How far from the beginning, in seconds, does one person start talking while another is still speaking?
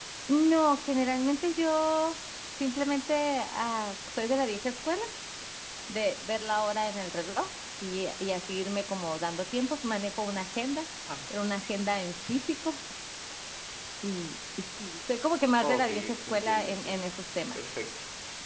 15.6 s

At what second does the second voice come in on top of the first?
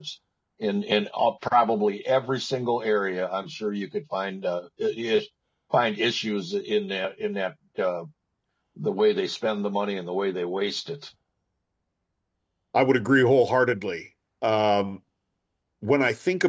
none

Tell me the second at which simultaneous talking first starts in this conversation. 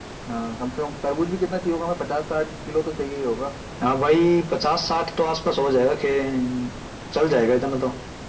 none

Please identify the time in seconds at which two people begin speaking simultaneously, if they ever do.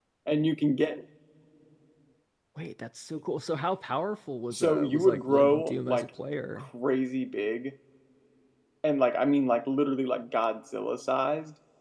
4.5 s

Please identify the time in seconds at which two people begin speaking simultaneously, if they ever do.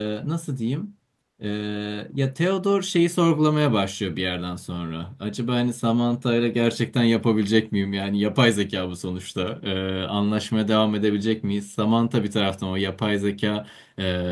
none

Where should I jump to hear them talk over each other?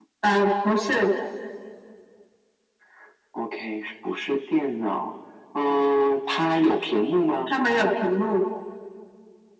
none

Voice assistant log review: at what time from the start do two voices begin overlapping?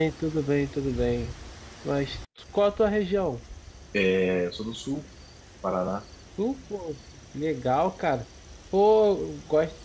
none

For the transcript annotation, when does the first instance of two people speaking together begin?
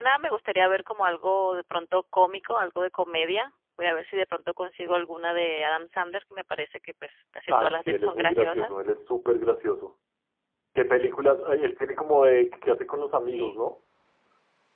7.5 s

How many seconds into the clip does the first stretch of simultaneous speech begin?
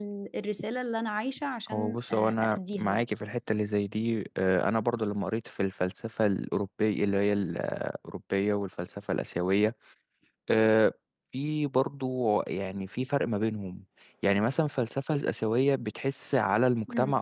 1.7 s

